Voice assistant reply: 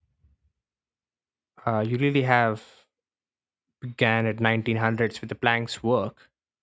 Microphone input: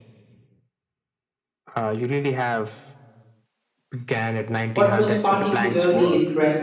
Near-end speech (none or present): present